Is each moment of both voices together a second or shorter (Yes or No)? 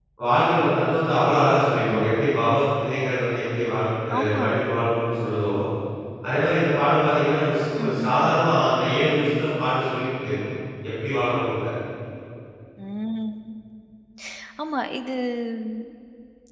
Yes